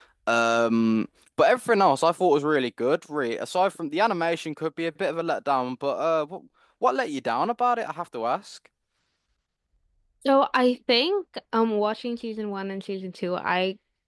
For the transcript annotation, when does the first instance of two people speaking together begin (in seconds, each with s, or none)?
none